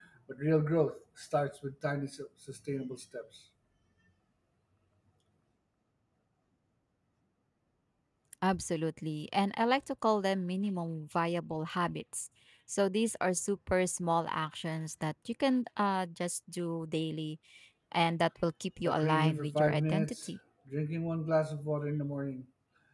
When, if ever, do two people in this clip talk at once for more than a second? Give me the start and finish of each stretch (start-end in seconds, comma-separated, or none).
18.8-20.3